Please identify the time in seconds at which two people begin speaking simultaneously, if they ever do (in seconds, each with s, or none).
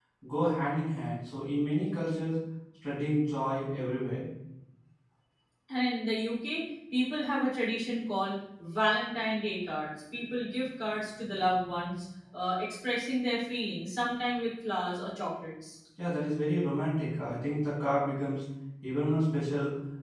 none